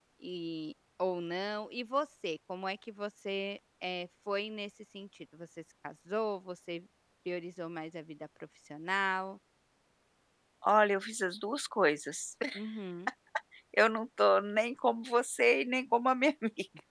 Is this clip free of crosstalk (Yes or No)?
Yes